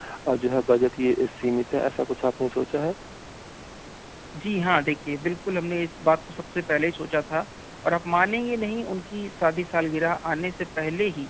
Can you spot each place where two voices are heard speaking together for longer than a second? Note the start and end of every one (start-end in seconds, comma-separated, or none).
none